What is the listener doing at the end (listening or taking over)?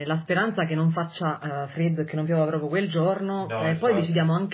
listening